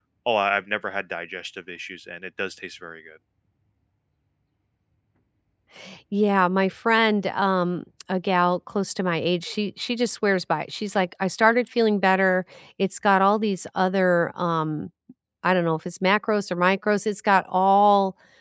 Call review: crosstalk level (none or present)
none